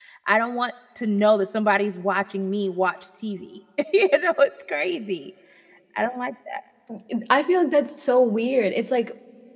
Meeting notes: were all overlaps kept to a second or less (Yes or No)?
Yes